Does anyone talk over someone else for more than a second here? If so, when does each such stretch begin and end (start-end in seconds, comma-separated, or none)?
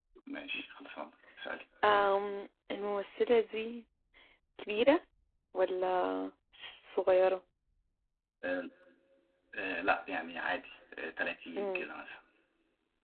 none